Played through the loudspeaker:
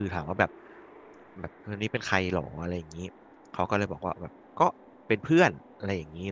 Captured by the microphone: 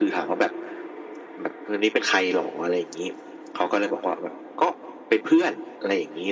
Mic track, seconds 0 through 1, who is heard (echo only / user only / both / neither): echo only